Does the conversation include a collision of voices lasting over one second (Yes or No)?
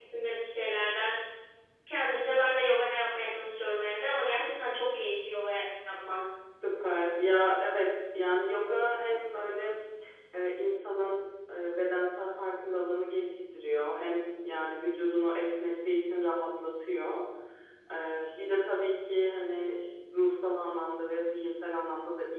No